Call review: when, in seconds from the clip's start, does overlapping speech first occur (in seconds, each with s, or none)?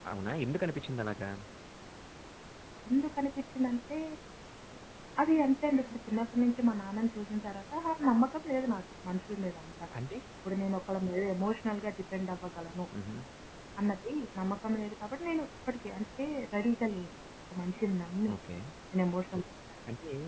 none